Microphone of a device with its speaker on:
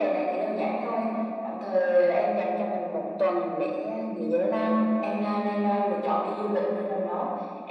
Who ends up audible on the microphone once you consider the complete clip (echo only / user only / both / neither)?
echo only